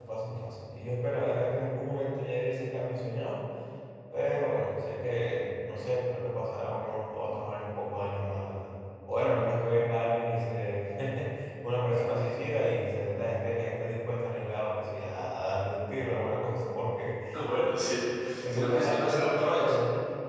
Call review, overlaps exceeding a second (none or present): present